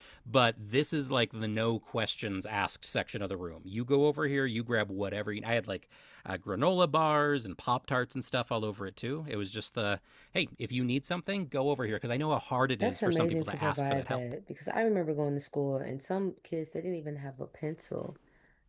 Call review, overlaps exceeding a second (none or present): present